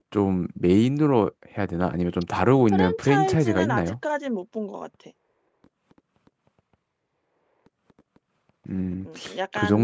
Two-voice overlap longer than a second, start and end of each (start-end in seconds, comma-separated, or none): 2.7-3.9